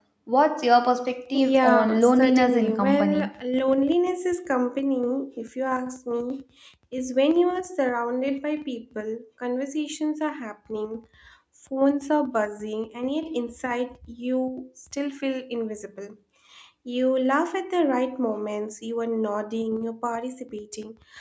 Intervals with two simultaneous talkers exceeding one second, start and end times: 1.3-3.3

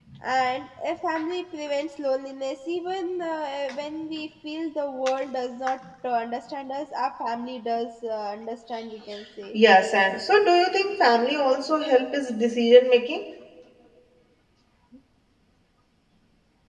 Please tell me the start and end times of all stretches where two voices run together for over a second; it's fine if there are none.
none

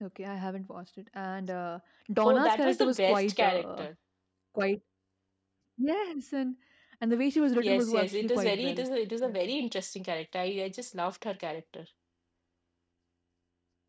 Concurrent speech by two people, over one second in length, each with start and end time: 2.2-3.8, 7.6-8.8

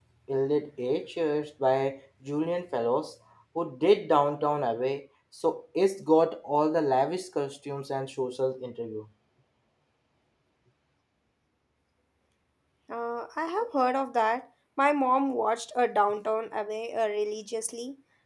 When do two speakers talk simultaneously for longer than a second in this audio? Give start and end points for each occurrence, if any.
none

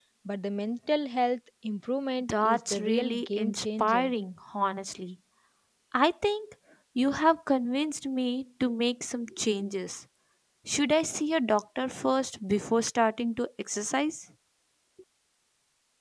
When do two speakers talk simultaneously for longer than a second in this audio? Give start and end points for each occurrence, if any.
2.3-4.1

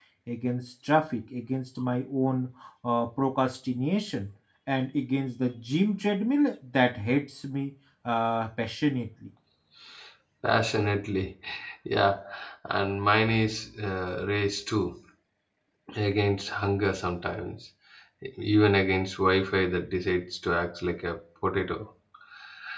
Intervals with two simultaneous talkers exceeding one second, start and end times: none

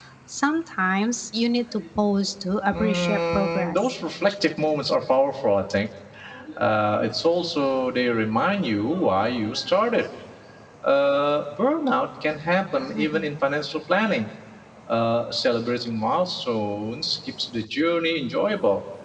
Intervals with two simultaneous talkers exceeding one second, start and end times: 2.7-3.9

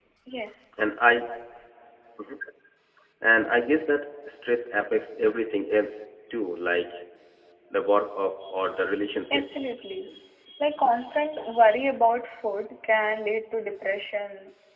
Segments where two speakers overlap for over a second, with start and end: none

